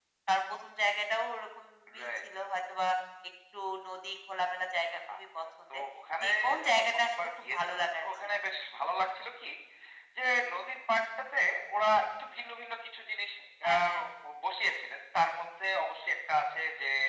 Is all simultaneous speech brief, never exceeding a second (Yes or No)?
No